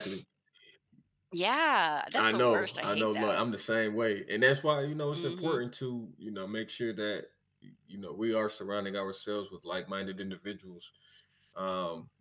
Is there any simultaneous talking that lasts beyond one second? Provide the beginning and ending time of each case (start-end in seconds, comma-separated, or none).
2.2-3.4